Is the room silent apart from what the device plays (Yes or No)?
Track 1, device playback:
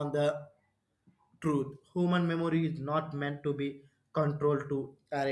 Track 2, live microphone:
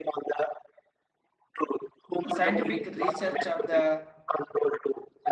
No